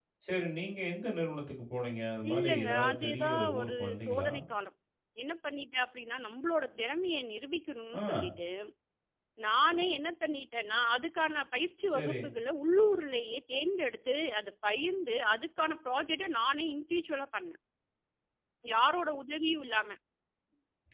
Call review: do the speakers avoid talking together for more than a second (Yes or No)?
No